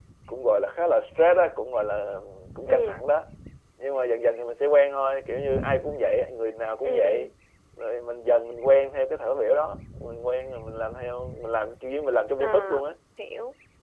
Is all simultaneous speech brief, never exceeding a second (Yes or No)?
Yes